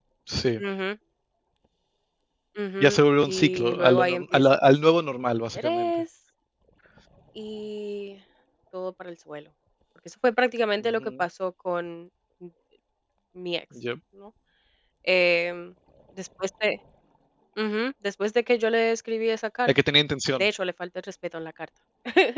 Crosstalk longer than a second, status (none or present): present